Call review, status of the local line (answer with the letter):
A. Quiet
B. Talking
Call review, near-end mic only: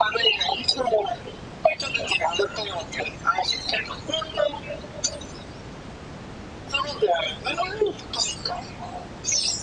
A